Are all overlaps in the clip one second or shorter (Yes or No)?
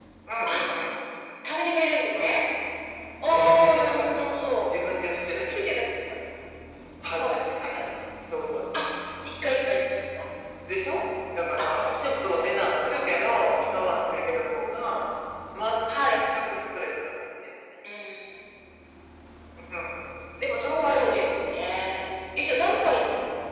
No